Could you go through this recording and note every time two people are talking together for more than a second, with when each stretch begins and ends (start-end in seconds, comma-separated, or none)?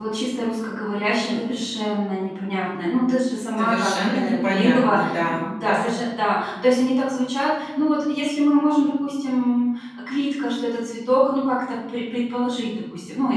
3.6-5.9